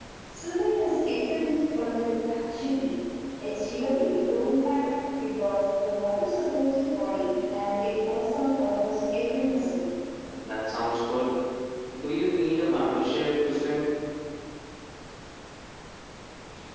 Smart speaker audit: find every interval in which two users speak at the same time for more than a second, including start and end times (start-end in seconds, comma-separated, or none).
none